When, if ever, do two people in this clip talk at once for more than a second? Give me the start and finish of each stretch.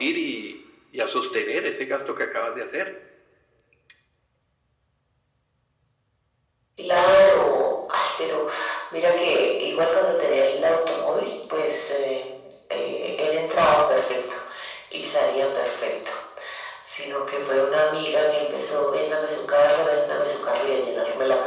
none

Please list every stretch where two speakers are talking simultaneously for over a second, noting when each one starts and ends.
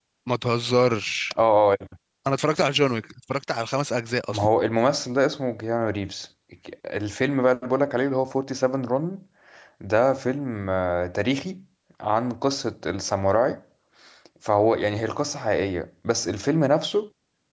none

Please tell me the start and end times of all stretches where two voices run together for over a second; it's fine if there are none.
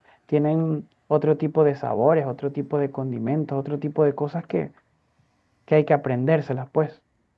none

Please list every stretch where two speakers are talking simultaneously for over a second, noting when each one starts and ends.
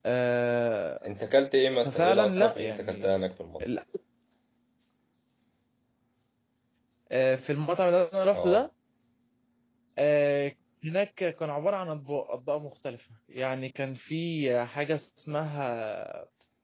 1.8-3.1

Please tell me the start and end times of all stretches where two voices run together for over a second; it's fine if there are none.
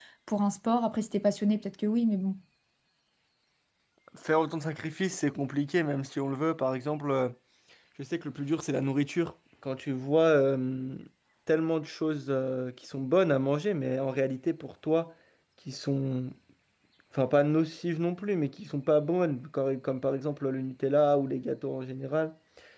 none

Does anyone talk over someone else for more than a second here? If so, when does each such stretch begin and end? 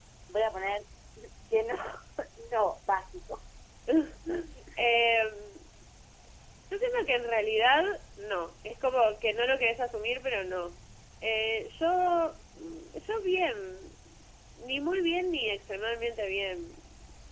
none

